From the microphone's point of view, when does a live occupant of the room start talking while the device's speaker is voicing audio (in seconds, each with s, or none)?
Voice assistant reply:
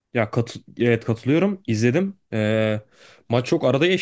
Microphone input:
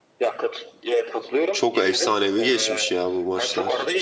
1.5 s